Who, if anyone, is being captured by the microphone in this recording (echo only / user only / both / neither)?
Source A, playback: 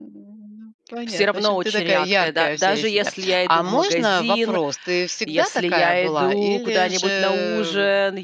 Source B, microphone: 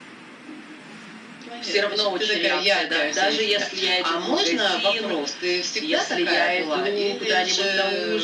echo only